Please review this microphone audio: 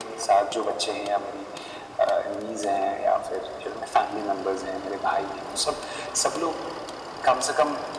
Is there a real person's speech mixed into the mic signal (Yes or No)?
No